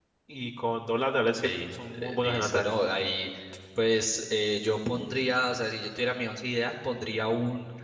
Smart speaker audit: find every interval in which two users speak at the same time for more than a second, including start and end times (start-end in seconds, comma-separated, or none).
1.3-2.8